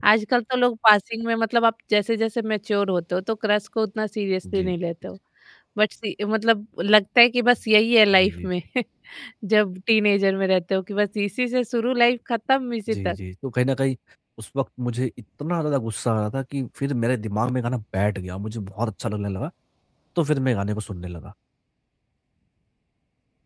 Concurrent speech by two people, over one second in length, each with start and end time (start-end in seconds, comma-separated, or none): none